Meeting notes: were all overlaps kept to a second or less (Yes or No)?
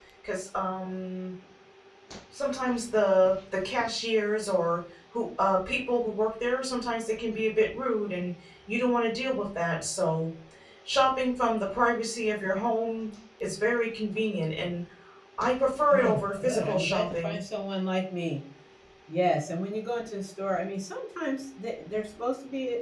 No